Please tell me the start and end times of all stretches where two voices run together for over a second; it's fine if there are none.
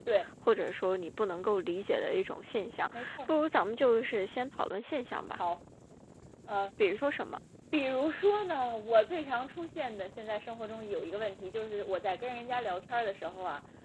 none

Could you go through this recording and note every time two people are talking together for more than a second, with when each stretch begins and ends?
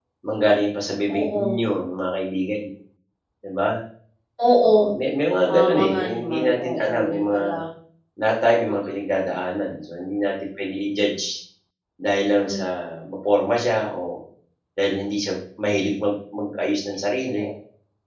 5.5-7.4

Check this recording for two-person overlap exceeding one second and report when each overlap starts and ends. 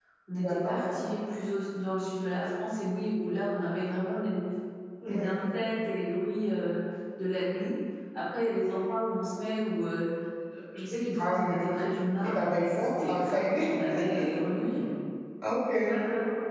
12.2-13.6

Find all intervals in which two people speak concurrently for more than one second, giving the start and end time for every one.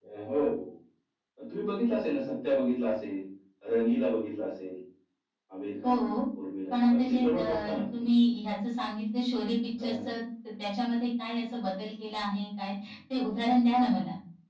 6.7-8.1

